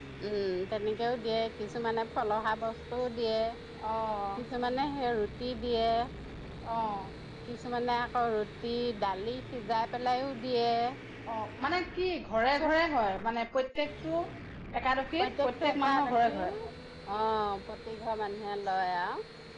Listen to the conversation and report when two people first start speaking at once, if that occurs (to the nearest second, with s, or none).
15 s